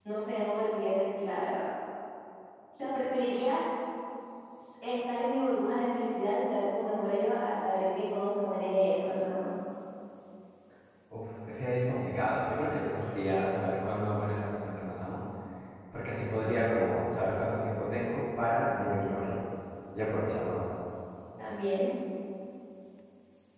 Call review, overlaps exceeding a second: none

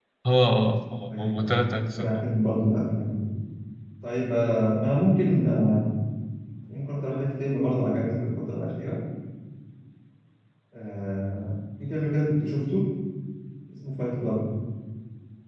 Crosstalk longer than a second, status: present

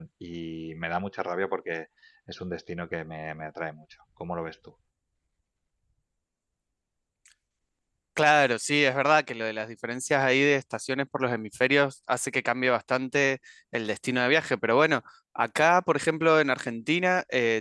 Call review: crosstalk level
none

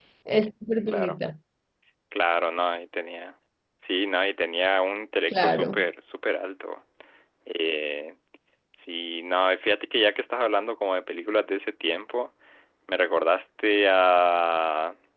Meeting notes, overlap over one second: none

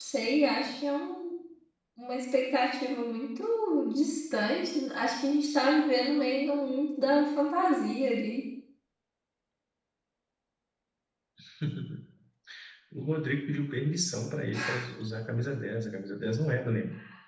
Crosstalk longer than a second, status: none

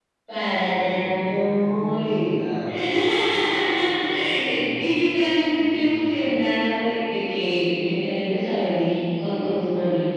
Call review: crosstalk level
present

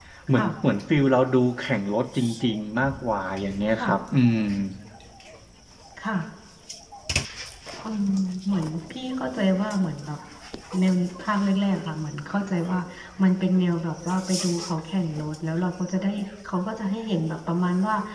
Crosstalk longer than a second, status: none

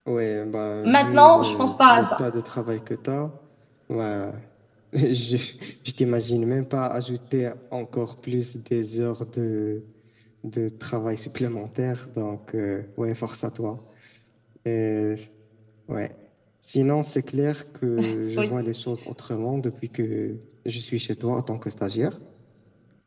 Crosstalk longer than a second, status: present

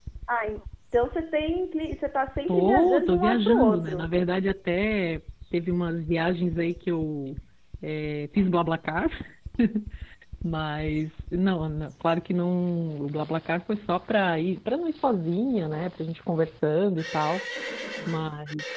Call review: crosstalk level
present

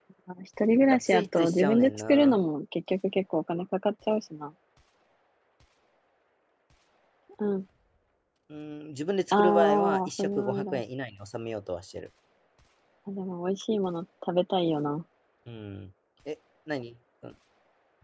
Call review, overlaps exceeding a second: present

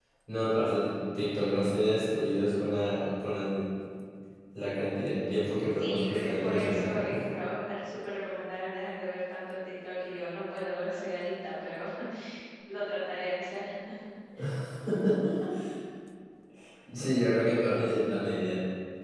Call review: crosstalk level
present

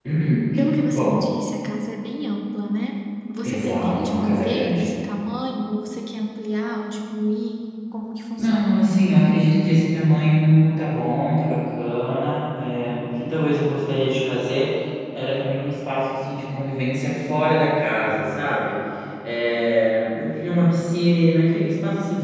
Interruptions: present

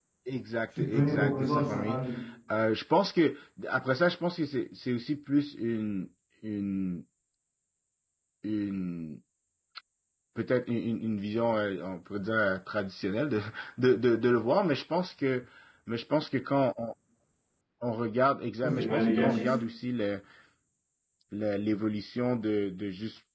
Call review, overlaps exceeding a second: present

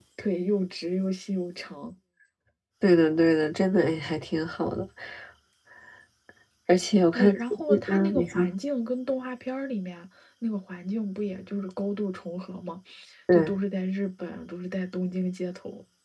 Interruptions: present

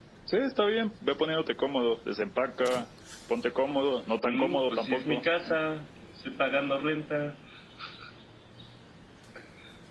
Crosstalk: present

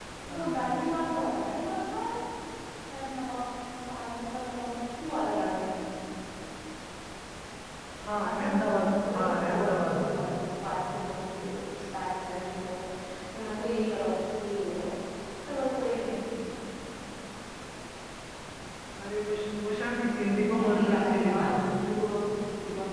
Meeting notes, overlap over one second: present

